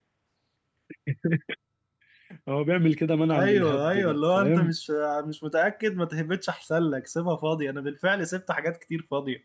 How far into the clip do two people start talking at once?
3.3 s

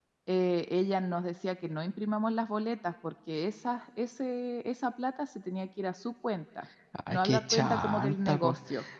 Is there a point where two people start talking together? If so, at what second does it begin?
6.9 s

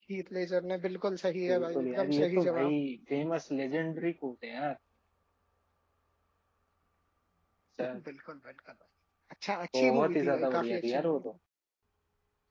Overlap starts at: 1.5 s

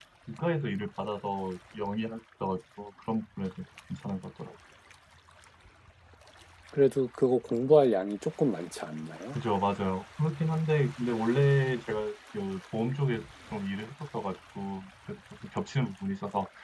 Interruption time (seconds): none

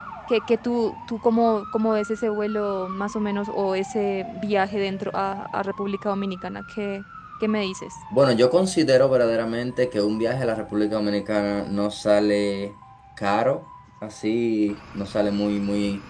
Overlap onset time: none

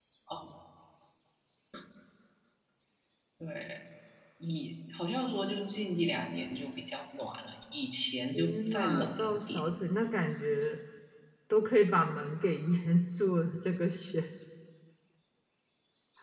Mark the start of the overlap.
8.3 s

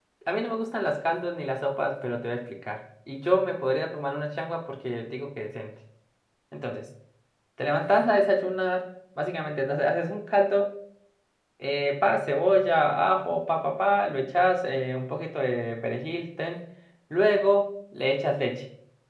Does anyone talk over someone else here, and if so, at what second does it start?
none

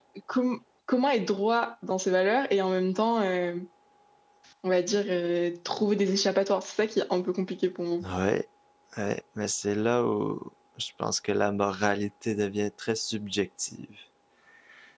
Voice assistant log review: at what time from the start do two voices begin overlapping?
none

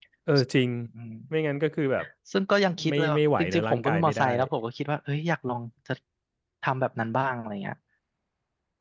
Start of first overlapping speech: 2.9 s

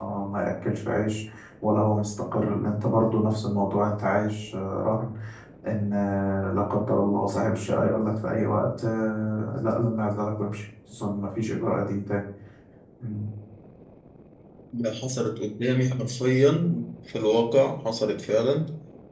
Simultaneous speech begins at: none

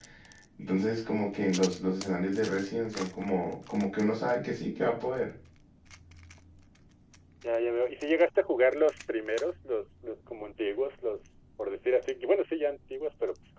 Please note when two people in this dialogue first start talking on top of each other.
none

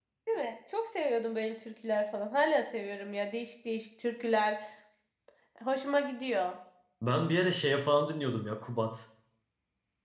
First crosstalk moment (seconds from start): none

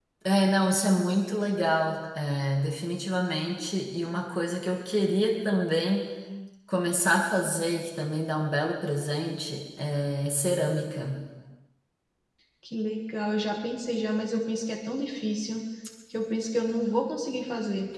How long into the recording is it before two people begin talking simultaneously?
none

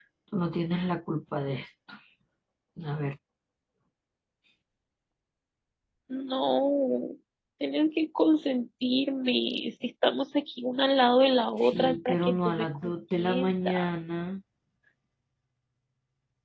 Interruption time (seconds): 11.6 s

